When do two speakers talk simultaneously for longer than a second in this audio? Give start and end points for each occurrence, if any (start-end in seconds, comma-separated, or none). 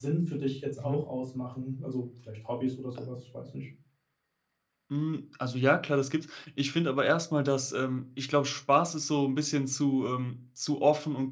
none